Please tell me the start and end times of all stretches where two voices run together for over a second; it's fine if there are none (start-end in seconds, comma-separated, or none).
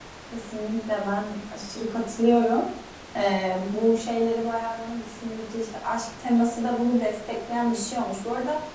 none